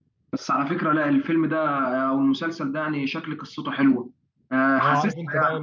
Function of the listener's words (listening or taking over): taking over